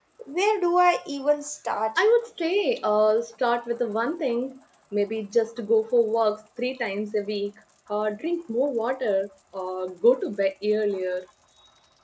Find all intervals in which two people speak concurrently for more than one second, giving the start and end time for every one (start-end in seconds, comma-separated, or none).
none